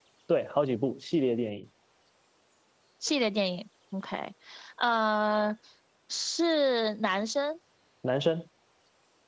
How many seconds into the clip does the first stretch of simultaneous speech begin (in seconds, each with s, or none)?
none